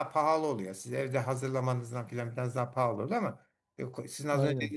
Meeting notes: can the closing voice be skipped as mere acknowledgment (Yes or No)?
Yes